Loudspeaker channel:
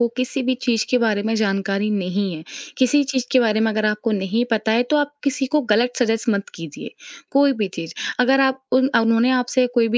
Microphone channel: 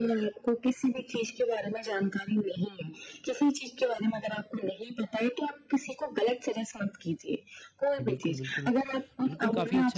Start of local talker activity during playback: 8 s

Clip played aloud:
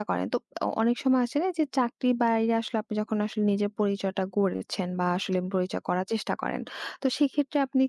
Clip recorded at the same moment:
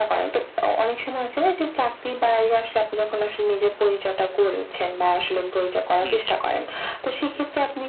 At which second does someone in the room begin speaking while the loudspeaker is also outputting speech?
6 s

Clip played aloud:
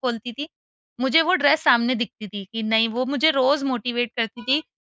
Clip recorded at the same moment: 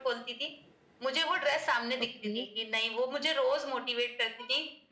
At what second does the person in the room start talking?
2 s

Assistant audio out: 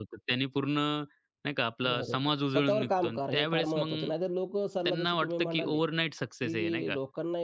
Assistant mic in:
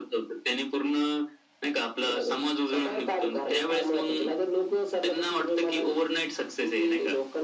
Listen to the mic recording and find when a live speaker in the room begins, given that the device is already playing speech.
none

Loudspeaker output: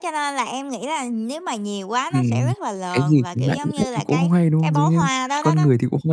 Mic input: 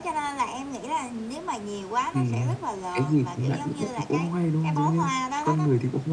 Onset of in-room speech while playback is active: none

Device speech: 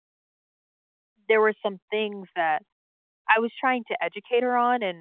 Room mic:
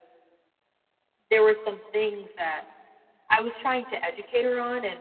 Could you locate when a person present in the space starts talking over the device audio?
none

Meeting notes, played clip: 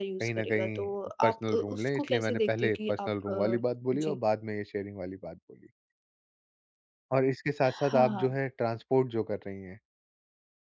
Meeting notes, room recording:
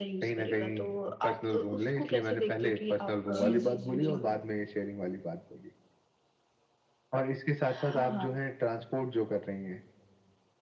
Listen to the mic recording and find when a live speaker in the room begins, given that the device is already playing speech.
3 s

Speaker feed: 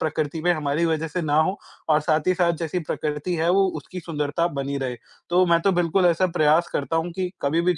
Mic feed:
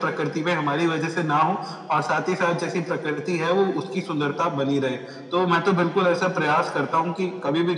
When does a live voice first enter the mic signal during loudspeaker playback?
none

